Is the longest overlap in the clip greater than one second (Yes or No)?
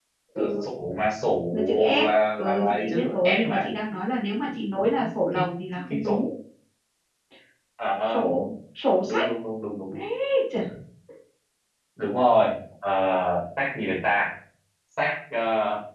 Yes